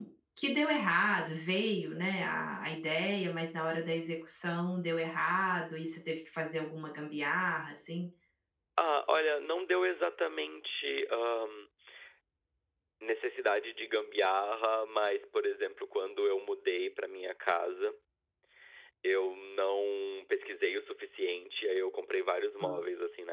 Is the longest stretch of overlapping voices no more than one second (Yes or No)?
Yes